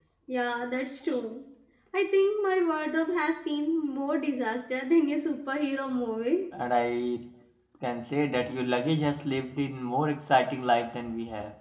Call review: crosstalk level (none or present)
none